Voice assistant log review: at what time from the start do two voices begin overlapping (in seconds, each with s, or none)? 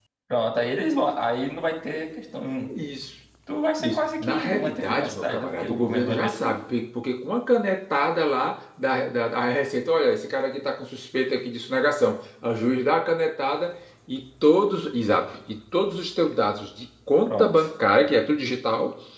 3.8 s